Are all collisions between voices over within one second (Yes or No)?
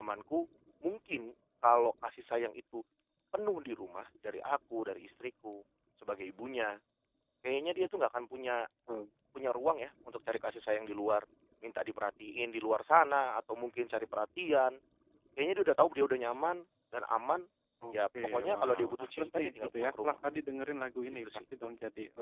No